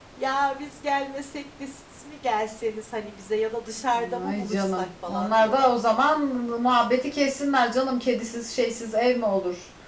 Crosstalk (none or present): present